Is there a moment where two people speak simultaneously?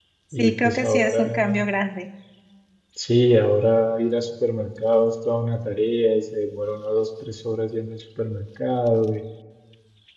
Yes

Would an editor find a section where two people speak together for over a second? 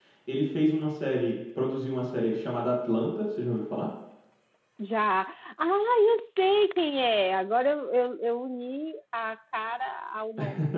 No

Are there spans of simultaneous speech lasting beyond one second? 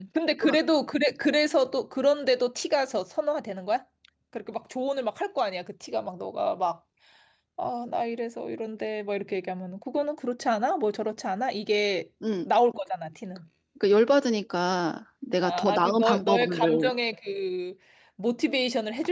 Yes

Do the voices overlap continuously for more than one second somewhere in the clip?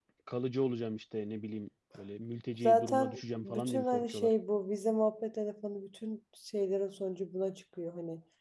Yes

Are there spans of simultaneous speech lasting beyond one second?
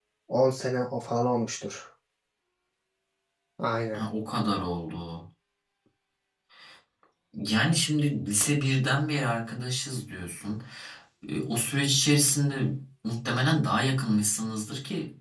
No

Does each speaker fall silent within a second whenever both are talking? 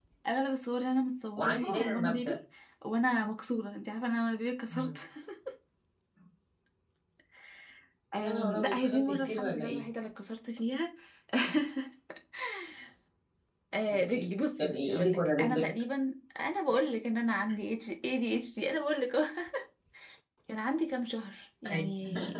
No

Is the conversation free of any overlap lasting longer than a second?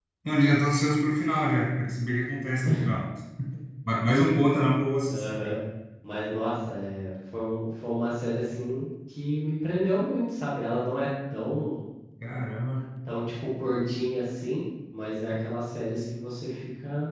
Yes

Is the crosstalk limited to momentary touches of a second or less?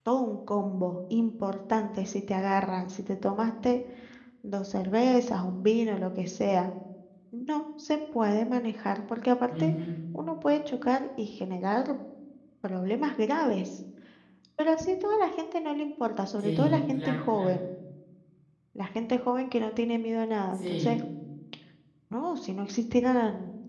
No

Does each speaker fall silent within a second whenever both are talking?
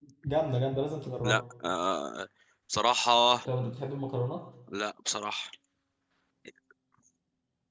Yes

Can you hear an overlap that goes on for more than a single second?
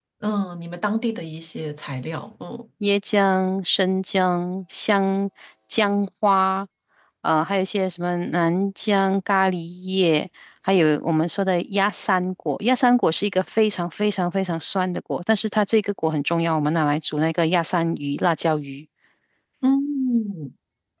No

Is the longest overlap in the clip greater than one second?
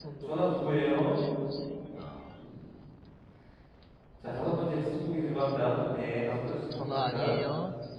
Yes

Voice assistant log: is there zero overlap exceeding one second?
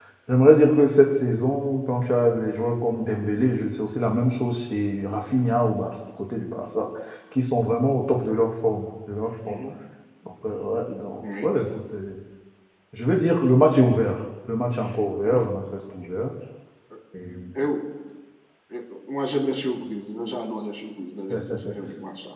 Yes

